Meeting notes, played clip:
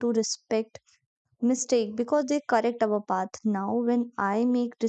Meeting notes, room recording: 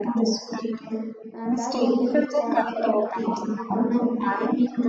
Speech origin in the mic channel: both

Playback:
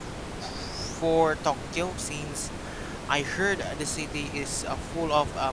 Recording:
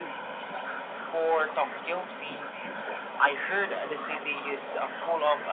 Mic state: echo only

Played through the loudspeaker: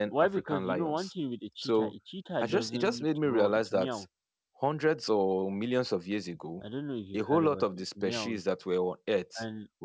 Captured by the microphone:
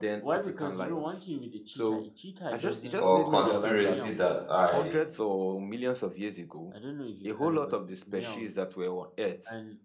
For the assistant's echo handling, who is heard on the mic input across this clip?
both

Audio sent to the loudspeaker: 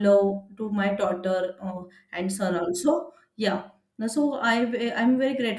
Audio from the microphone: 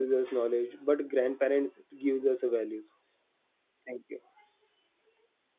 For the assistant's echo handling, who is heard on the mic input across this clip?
user only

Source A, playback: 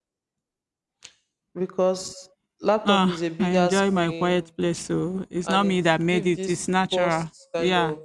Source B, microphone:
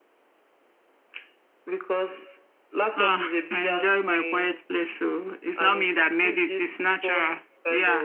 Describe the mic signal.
echo only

